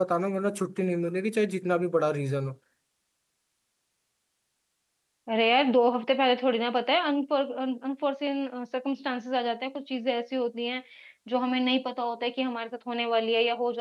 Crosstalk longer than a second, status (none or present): none